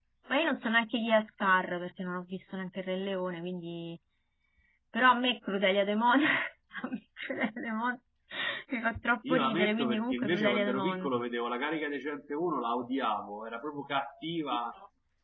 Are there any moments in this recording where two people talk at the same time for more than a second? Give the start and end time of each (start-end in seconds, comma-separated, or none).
9.3-11.1